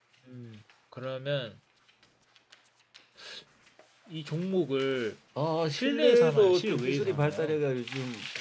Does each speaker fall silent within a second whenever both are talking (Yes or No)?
No